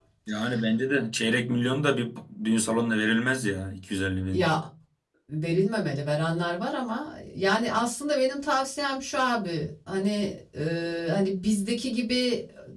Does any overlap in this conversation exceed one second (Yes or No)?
No